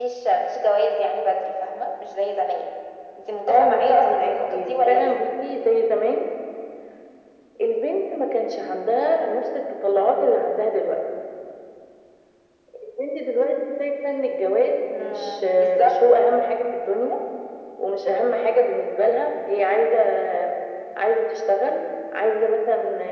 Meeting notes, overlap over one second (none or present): present